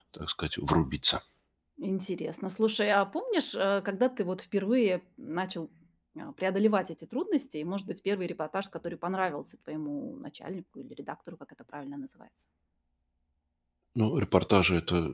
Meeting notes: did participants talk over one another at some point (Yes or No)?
No